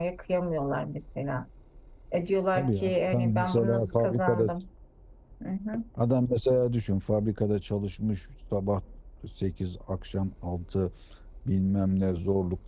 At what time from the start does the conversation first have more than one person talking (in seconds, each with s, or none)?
2.5 s